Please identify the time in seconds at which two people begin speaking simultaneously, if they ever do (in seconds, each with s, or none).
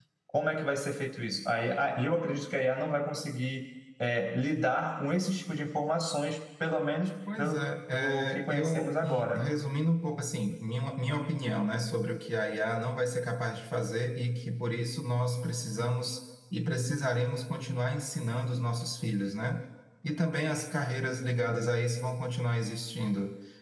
7.3 s